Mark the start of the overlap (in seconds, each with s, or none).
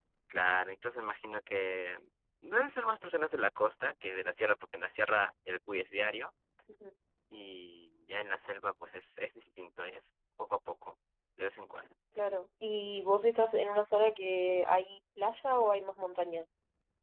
none